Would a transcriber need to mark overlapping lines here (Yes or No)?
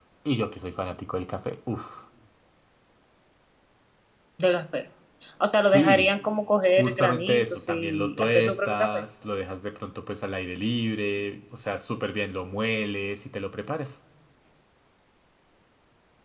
Yes